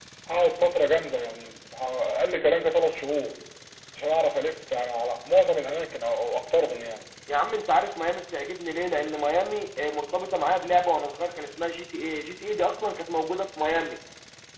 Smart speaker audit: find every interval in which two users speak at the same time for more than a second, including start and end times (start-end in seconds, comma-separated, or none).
none